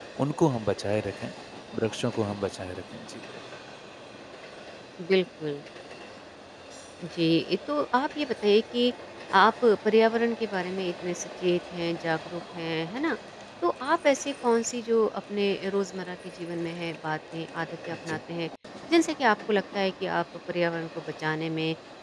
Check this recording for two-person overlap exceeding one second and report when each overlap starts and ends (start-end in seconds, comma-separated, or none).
none